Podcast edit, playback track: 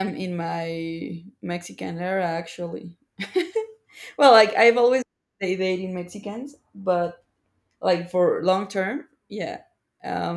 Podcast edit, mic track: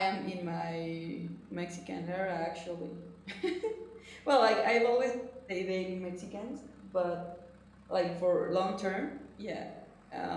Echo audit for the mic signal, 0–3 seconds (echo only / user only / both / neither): echo only